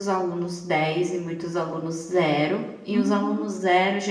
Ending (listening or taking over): listening